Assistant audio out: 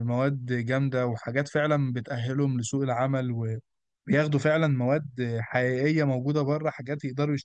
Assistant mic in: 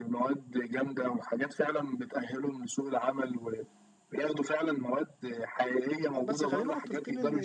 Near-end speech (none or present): present